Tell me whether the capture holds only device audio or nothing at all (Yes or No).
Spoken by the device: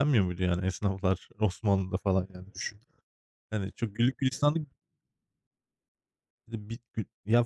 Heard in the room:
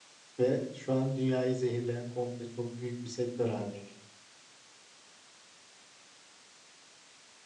No